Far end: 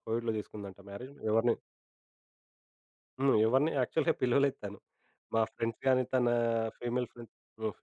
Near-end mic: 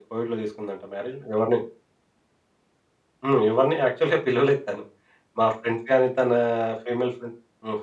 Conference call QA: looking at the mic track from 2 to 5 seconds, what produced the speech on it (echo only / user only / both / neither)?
echo only